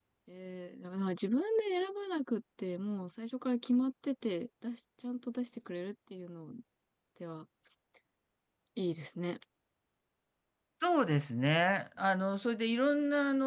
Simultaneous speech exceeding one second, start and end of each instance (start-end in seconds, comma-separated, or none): none